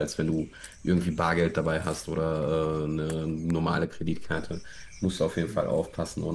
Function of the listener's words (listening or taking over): listening